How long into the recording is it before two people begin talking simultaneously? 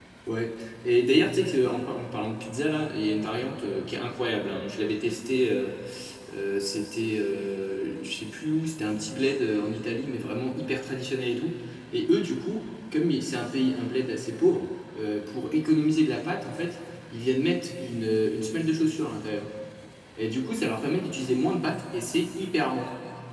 none

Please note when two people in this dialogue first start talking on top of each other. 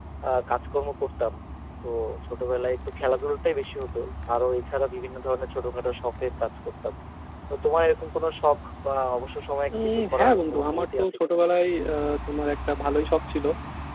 10 s

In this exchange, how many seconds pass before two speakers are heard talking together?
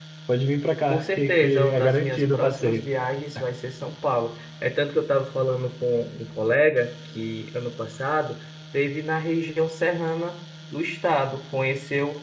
1 s

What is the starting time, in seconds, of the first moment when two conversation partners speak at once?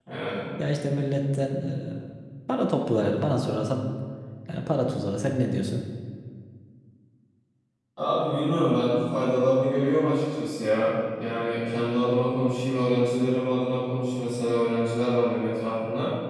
none

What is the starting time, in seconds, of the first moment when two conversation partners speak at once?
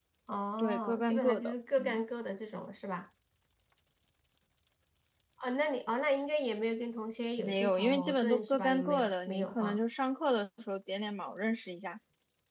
1 s

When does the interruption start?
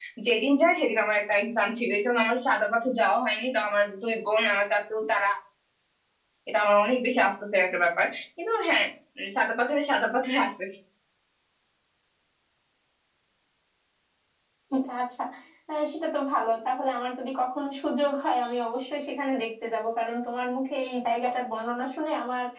none

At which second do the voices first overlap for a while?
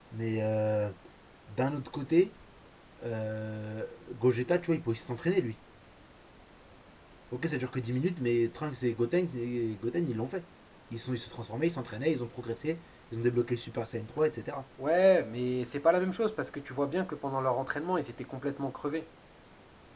none

